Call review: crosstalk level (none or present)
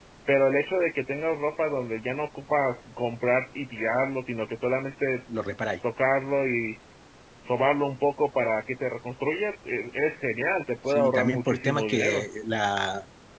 present